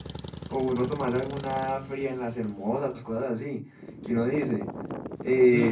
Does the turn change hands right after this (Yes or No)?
Yes